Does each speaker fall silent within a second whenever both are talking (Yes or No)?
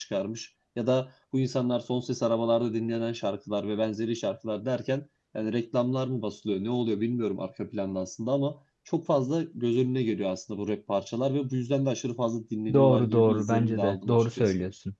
No